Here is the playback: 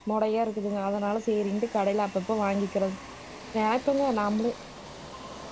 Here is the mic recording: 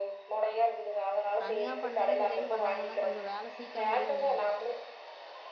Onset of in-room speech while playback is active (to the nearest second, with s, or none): 1 s